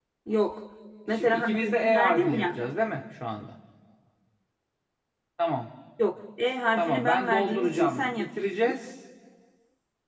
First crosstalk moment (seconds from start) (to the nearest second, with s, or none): 1 s